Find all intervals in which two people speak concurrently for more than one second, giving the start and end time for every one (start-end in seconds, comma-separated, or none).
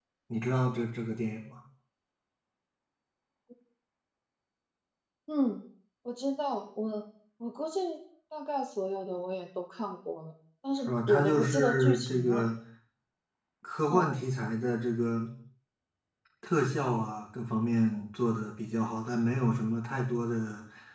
10.9-12.4